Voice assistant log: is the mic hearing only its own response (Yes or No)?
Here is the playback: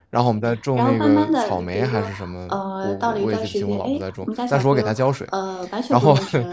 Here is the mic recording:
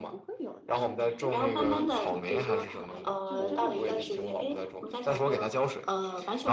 No